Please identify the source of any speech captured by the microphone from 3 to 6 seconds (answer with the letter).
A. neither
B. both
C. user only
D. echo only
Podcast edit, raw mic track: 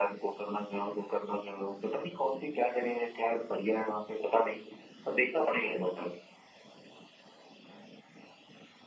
D